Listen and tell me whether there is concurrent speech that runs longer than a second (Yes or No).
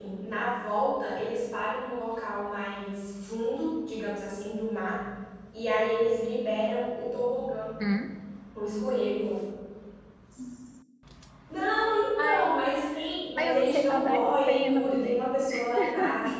Yes